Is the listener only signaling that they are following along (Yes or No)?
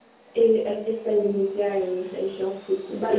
No